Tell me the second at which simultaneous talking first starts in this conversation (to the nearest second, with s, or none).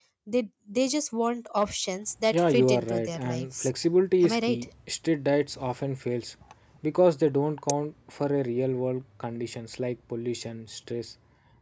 2 s